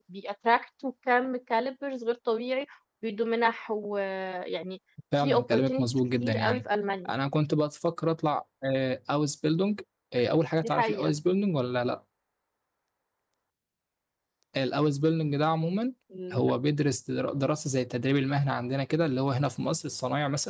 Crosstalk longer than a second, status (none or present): present